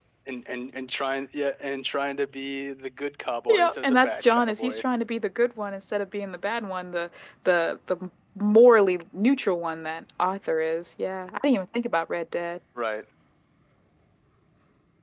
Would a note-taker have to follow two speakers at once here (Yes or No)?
Yes